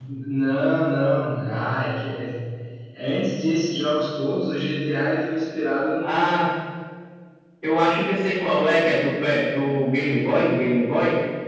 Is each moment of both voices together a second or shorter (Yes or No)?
Yes